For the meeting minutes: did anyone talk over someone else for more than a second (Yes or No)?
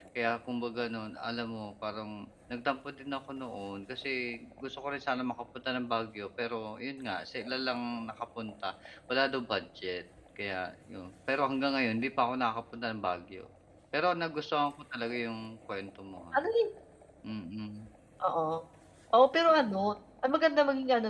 No